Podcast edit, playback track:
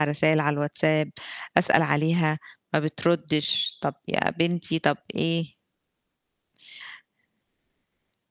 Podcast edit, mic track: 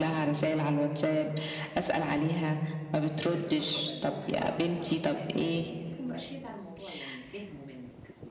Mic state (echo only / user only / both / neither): both